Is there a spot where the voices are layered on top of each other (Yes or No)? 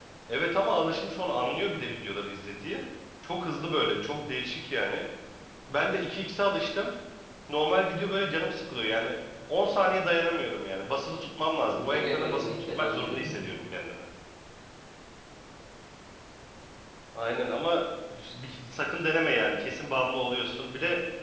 Yes